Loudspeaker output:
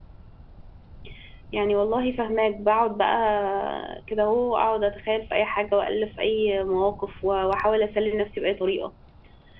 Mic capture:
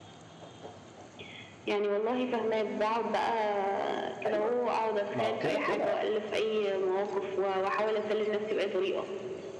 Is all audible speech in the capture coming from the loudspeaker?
No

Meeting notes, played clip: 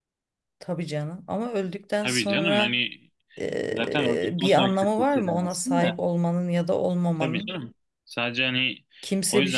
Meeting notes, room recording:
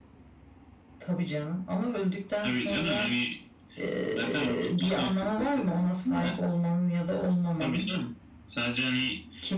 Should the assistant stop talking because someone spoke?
No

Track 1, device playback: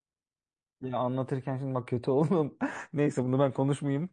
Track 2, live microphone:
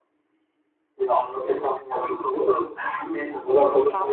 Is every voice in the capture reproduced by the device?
No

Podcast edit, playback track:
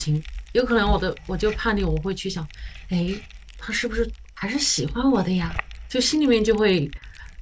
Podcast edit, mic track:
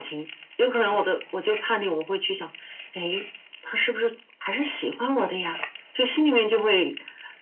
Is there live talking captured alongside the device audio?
No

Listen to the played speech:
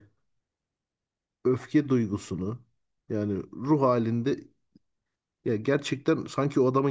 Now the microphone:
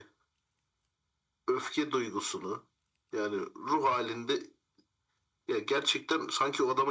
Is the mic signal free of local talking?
Yes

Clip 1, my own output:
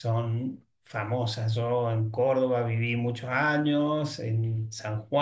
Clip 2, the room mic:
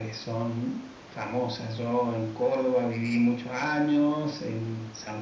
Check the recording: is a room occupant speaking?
No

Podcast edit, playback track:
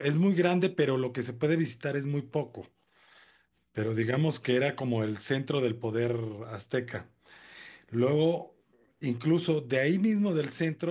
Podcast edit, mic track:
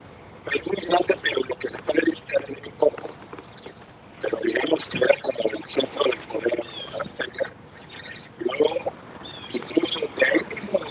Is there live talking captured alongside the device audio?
No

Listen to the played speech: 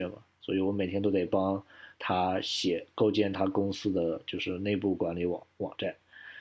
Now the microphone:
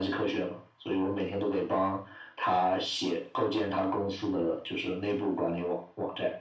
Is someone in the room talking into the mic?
No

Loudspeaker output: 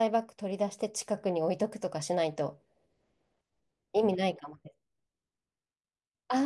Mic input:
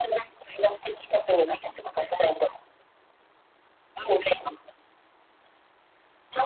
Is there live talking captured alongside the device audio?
No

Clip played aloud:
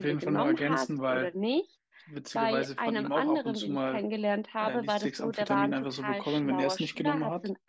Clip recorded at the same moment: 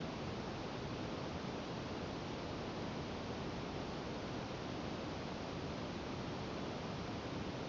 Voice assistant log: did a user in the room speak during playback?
No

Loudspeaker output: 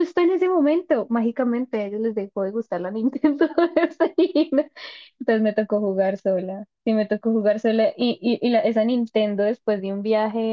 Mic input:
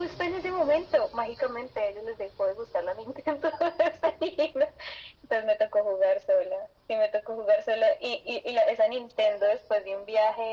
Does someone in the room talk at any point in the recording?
No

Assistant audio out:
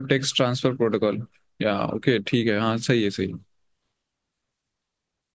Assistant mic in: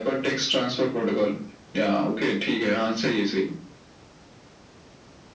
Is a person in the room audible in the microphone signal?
No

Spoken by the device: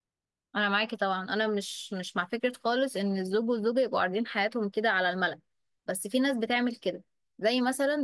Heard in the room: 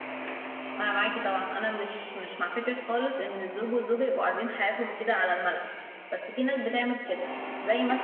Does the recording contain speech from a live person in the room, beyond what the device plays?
No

